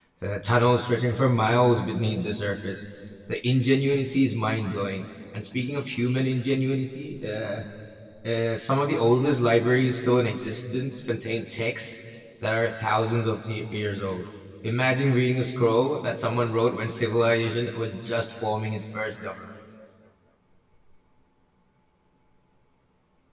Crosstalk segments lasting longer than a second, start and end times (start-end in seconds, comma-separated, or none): none